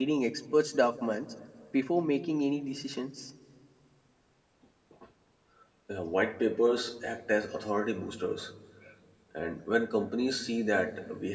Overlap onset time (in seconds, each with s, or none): none